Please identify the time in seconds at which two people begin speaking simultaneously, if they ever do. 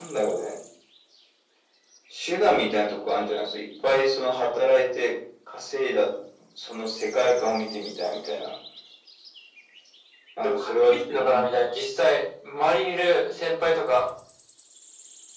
10 s

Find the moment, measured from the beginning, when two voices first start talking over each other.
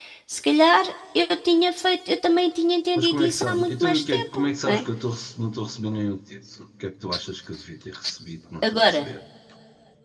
3 s

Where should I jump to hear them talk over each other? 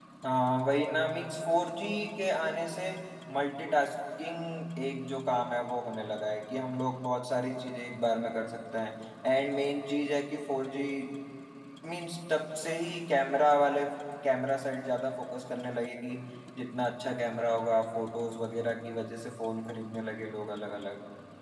none

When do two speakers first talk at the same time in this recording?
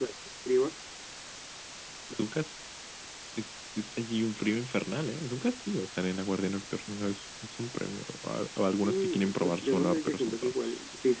9 s

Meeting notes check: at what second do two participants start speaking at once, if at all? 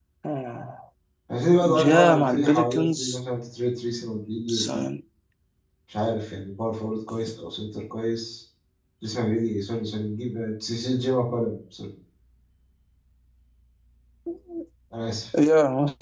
2 s

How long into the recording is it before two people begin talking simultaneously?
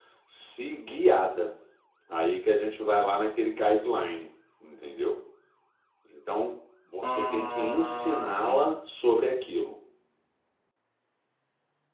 7 s

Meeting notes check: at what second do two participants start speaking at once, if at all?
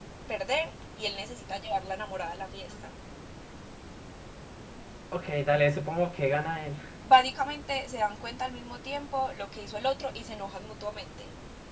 none

